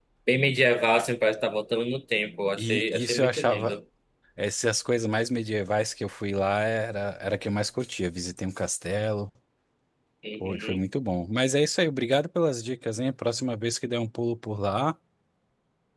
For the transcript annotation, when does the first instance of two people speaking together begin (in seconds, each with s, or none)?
2.6 s